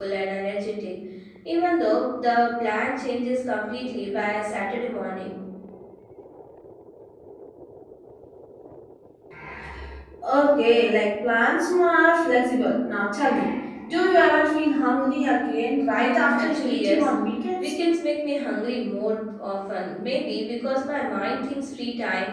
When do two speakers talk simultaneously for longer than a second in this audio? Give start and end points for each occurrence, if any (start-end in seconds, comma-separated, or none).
15.8-17.1